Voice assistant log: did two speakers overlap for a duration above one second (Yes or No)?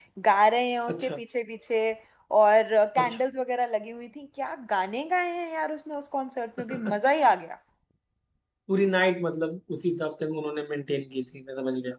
No